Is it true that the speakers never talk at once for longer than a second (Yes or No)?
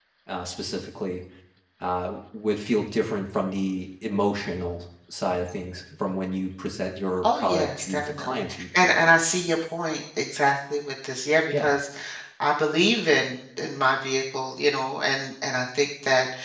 No